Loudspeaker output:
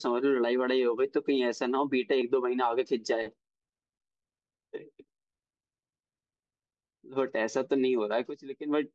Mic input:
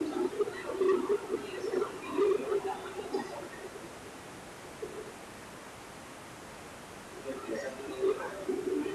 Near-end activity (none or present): none